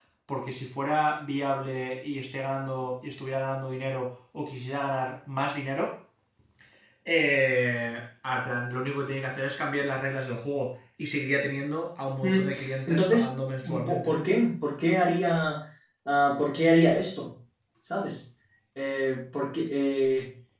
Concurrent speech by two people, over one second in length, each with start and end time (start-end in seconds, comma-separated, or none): none